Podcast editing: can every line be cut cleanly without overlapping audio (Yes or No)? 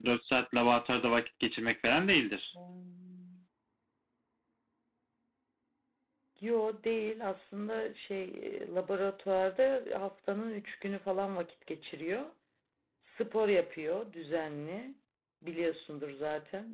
Yes